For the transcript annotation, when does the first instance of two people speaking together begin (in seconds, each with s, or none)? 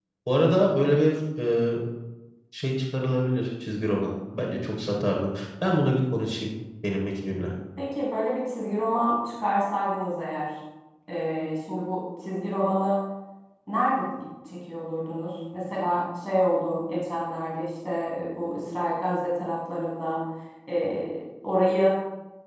none